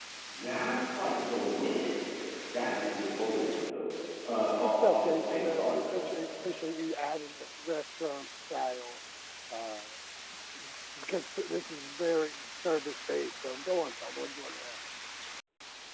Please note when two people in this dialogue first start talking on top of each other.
4.5 s

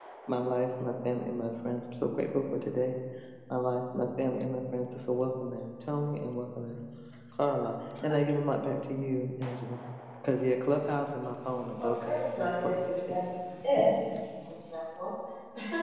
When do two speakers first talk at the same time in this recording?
11.8 s

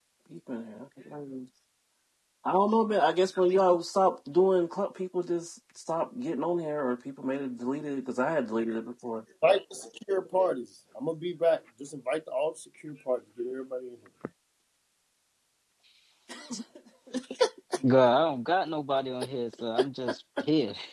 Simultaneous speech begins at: none

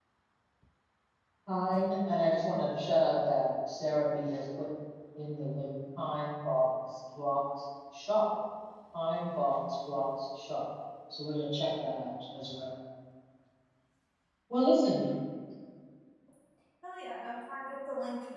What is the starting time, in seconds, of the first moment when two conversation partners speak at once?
none

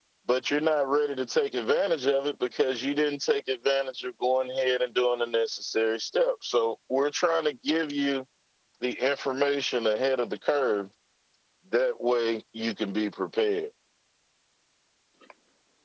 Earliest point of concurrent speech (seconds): none

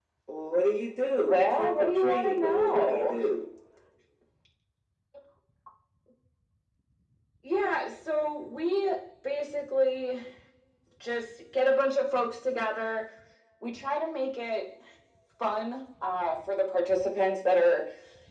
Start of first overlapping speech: 1.2 s

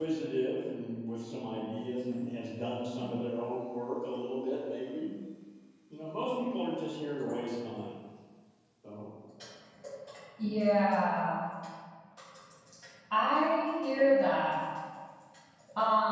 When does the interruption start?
none

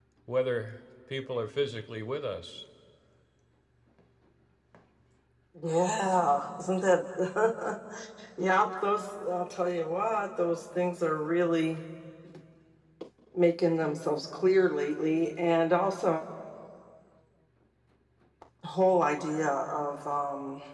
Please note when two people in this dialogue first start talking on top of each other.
none

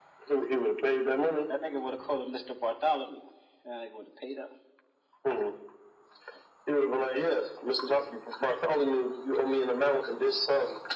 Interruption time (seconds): none

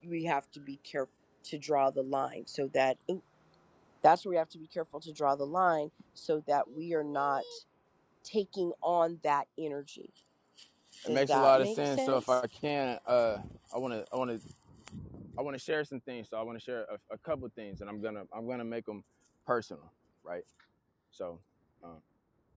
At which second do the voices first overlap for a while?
11.1 s

